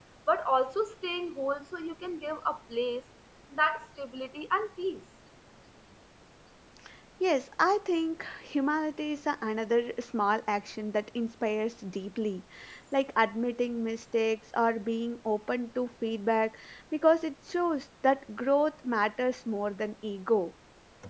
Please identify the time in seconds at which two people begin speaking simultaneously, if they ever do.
none

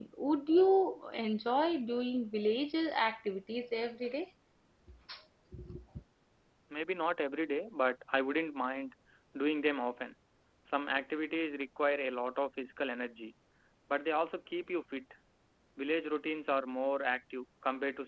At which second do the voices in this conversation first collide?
none

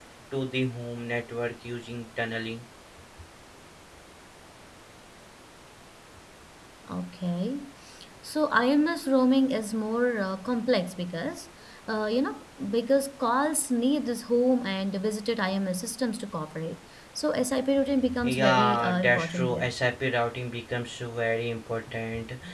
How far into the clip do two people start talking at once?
18.1 s

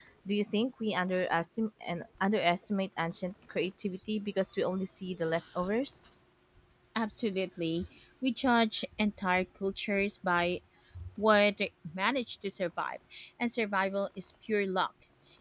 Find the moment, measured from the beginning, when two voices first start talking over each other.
none

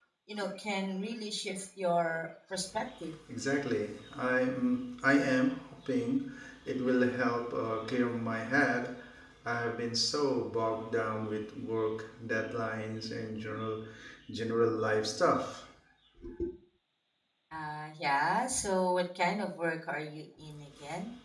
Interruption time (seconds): none

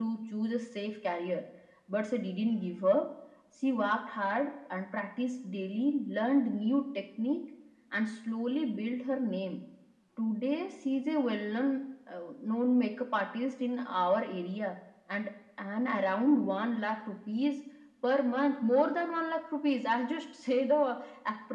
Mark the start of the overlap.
none

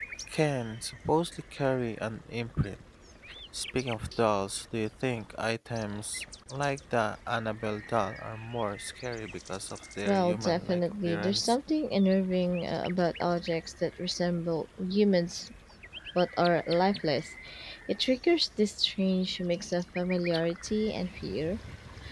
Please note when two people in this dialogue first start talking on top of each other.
10.0 s

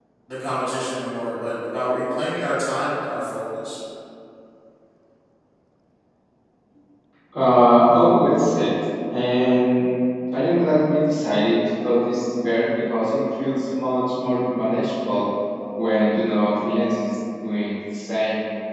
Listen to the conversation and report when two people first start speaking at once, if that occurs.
none

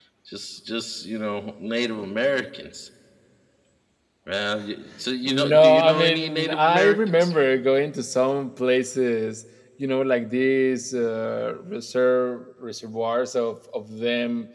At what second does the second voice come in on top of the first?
5.2 s

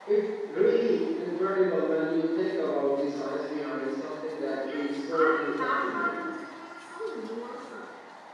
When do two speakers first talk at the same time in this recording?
4.6 s

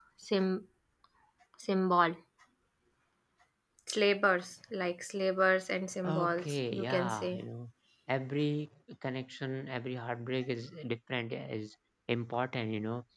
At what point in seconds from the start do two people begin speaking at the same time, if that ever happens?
6.0 s

